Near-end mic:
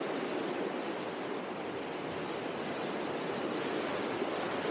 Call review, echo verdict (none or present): none